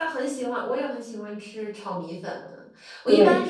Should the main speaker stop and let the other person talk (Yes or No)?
No